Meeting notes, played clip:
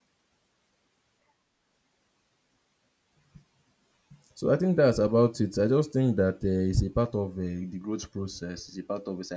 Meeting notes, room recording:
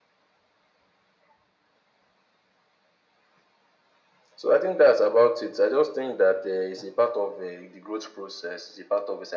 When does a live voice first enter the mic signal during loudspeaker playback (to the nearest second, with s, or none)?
none